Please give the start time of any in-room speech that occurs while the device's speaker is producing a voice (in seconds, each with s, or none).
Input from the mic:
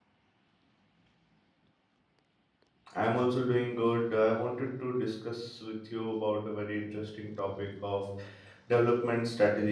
2.9 s